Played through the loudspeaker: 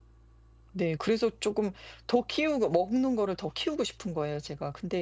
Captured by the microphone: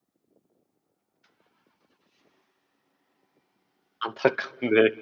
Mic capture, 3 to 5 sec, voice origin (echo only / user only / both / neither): user only